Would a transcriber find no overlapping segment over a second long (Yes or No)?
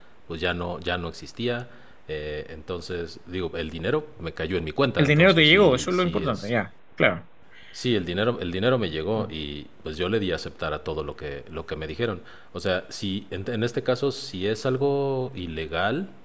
No